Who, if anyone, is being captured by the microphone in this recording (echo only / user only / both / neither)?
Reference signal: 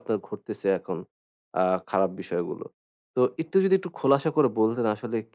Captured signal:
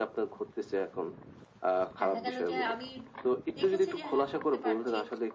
both